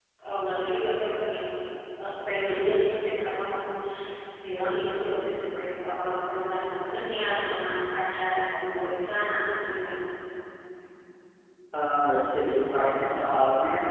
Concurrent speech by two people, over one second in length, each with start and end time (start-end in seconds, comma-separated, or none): none